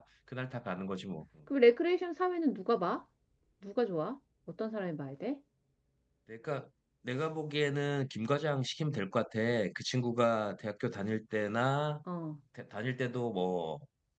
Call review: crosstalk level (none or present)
none